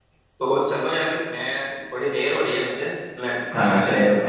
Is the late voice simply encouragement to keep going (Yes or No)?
No